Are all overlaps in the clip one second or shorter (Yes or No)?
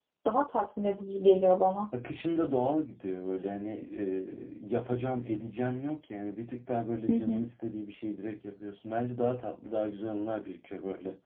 Yes